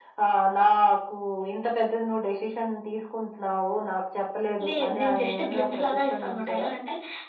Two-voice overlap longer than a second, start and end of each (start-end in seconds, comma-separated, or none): 4.7-6.7